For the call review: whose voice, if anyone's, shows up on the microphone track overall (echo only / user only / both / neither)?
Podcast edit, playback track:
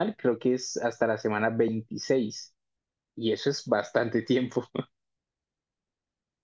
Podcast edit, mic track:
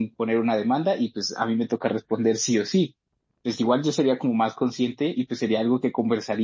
user only